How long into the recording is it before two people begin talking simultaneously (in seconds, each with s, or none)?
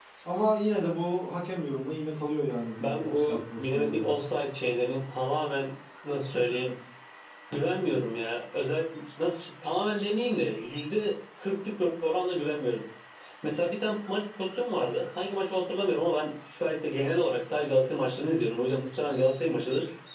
2.8 s